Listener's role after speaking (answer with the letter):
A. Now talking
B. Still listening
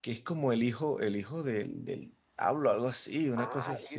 A